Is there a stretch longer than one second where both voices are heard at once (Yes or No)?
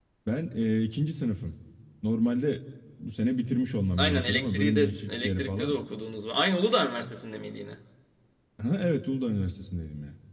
Yes